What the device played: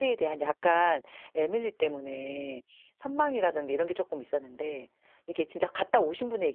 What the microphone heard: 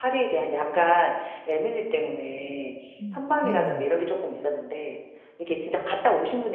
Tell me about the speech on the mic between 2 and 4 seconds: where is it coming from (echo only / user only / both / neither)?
both